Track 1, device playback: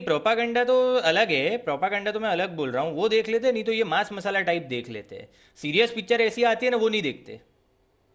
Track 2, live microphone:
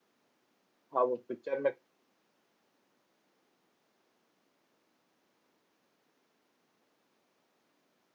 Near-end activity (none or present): present